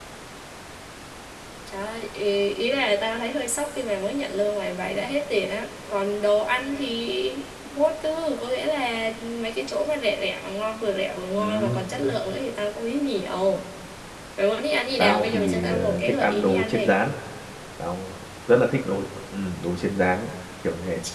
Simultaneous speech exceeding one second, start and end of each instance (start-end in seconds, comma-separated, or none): 15.0-16.9